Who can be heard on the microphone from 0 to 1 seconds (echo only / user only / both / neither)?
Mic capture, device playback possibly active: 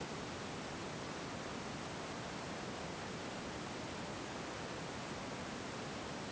neither